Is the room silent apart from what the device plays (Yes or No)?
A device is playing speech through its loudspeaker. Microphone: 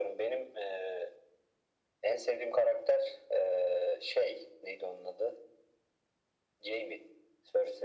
Yes